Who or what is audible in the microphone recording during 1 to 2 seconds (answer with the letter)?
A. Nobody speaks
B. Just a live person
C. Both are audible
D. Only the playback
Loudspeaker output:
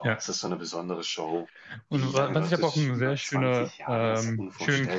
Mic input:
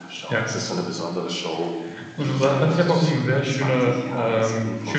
D